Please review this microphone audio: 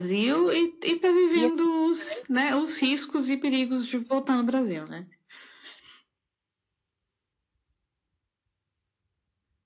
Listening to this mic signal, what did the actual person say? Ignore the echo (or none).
E, assim, faz